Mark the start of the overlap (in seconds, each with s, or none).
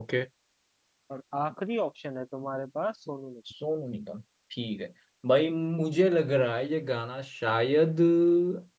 none